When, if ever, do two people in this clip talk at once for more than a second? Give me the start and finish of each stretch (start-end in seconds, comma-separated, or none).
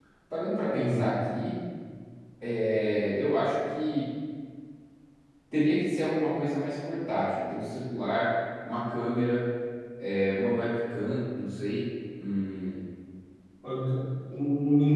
none